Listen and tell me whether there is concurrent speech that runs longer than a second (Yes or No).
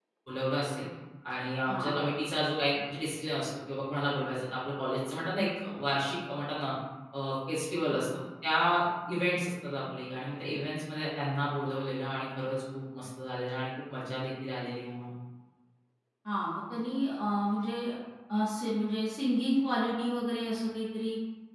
No